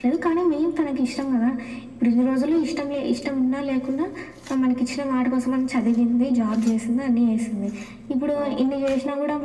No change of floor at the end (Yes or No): Yes